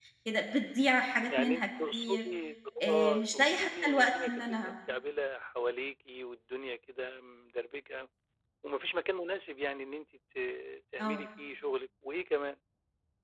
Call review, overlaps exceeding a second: present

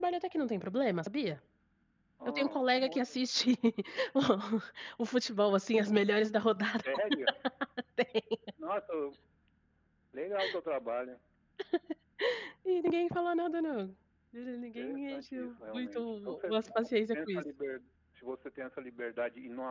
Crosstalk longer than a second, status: present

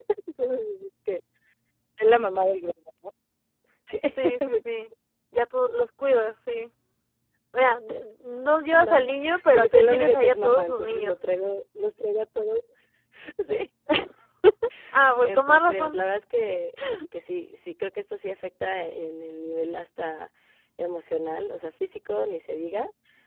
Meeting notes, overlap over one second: present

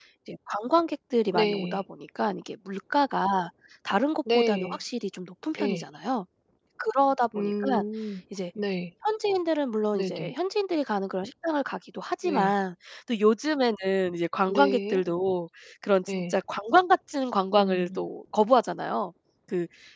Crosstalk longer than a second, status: none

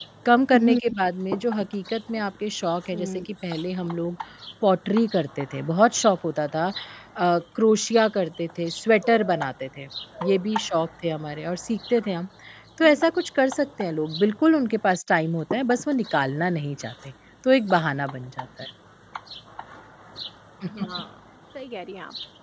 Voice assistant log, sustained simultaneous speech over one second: none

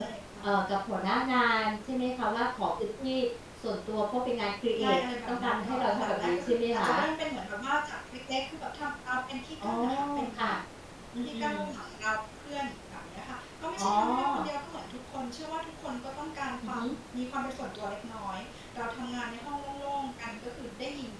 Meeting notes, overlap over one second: present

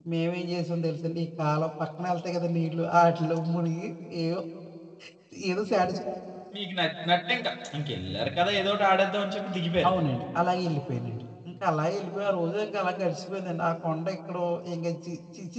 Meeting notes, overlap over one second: none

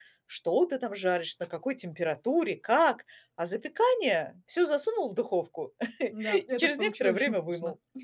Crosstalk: present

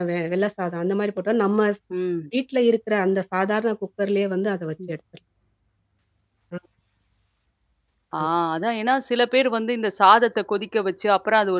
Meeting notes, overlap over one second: none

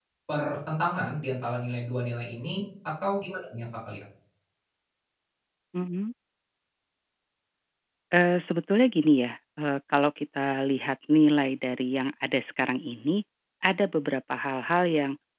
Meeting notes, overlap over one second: none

